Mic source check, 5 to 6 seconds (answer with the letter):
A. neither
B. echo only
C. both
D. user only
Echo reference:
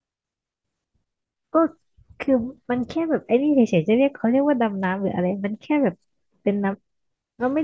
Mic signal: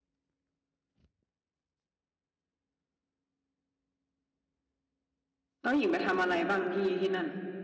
D